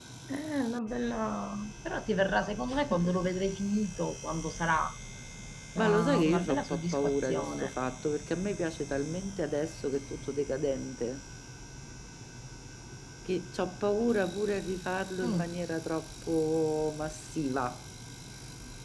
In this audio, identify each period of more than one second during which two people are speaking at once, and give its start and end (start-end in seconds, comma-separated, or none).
5.8-7.7